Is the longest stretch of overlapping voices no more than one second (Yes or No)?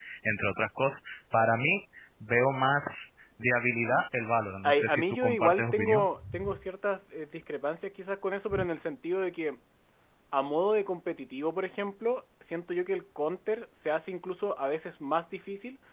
No